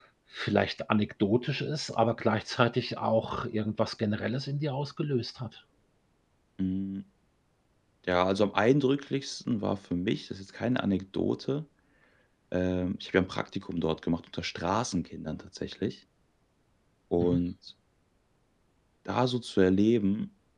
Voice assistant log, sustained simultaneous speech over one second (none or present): none